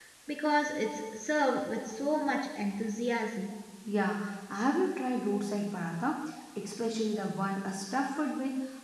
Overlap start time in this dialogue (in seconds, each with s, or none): none